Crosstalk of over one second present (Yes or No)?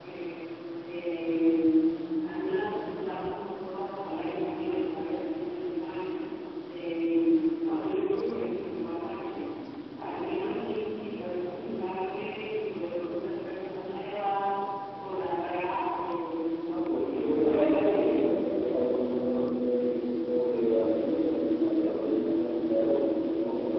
Yes